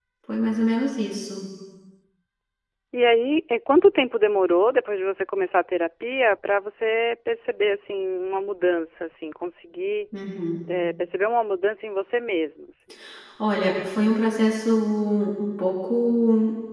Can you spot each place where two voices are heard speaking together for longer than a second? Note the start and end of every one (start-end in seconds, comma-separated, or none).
none